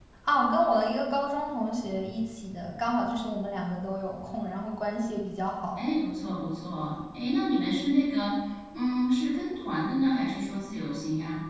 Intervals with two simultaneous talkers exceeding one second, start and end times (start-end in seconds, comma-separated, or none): none